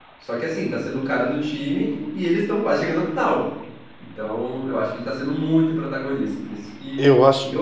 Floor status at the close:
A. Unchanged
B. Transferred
A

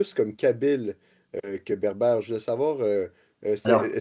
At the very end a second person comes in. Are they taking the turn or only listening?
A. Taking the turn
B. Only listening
B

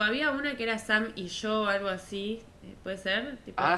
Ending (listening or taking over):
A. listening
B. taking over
B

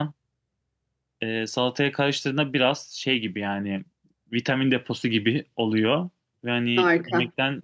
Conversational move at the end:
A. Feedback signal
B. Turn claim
A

